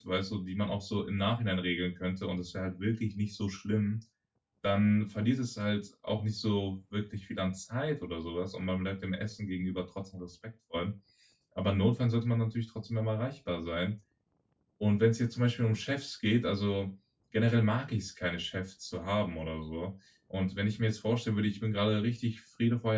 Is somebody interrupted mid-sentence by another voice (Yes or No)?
No